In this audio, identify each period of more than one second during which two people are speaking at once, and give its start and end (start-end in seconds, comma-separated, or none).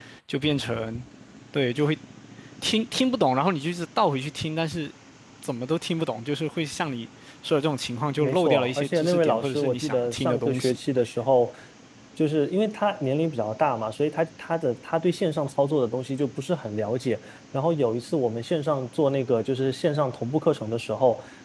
8.2-10.8